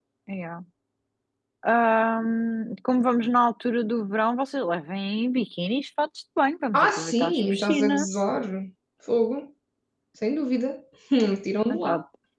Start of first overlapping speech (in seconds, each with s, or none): 6.7 s